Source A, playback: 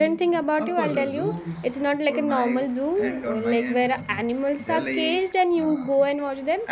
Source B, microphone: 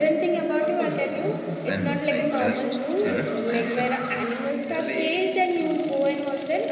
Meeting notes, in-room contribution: present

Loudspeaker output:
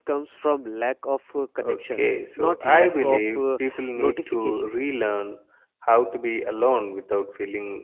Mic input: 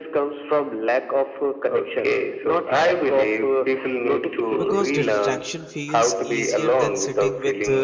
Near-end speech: present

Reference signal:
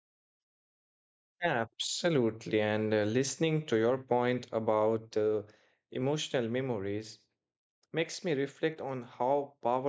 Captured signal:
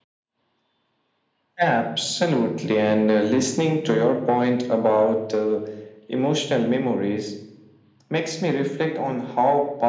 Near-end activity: none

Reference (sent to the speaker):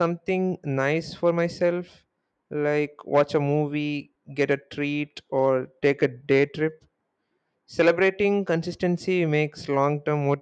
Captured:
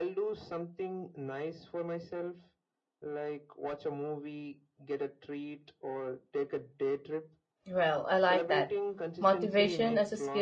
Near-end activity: present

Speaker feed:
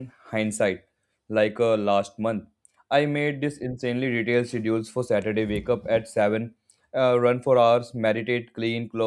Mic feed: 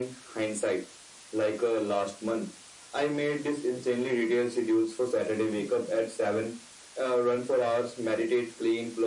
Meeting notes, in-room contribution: none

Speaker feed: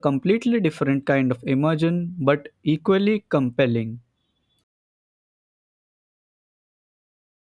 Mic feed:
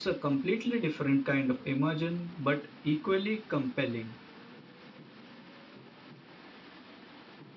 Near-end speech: none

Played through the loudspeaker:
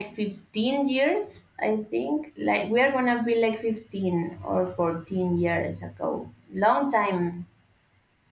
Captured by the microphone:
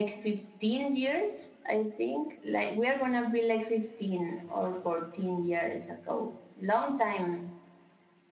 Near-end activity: none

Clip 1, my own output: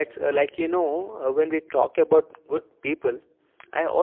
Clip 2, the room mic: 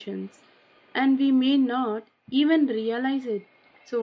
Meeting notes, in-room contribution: present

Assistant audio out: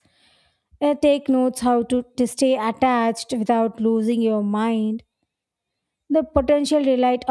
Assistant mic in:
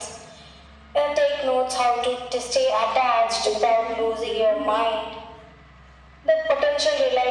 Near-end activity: present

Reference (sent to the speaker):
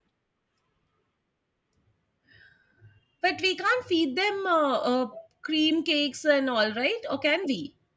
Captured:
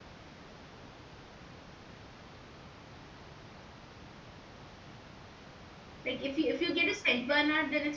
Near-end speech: present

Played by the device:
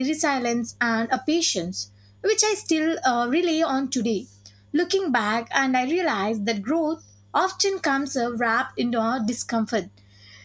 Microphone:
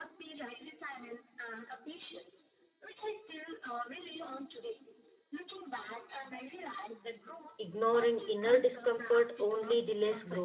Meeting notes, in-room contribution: present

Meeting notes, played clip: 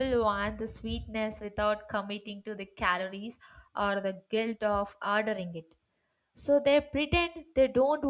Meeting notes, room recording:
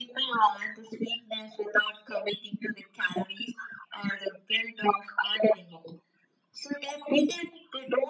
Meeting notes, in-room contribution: none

